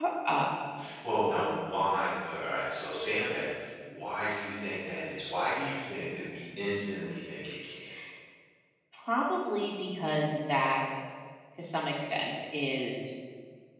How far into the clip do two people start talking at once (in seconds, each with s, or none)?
none